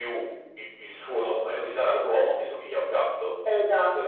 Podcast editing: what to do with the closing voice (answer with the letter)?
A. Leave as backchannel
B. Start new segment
B